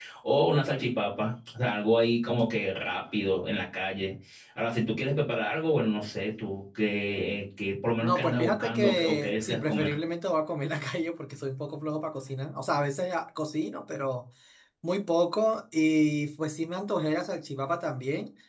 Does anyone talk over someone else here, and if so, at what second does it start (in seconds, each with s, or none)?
8.0 s